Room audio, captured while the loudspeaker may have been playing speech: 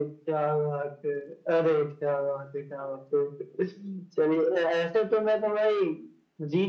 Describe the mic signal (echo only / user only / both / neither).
echo only